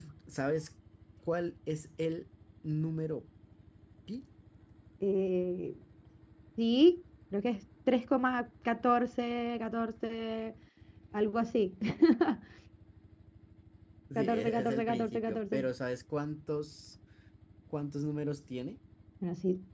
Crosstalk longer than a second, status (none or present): present